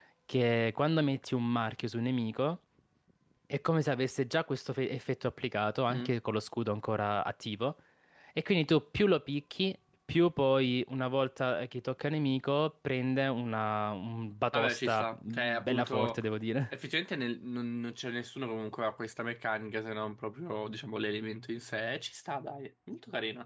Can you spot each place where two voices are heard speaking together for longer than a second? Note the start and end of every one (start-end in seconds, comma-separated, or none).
14.5-16.2